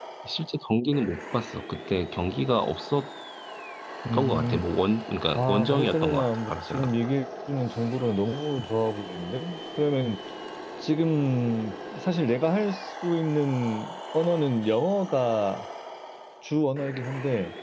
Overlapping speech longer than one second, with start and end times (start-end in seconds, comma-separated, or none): 5.3-7.0